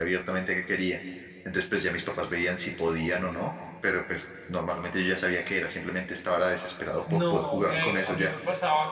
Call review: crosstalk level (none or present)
present